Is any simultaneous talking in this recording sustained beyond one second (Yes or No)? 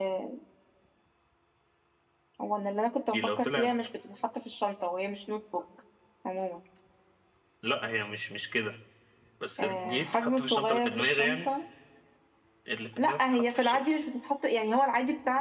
Yes